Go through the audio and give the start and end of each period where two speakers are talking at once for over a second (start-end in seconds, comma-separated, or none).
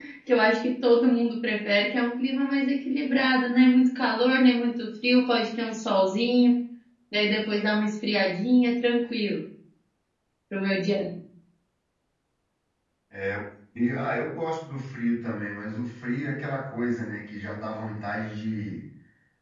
none